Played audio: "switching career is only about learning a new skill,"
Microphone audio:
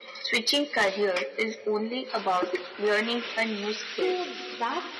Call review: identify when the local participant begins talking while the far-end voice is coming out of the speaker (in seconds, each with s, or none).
3.8 s